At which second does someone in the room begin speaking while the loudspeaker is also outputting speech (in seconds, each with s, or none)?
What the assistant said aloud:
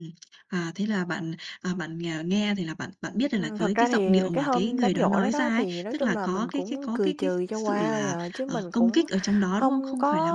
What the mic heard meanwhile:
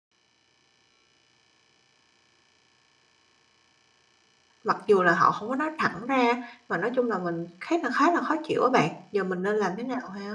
4.6 s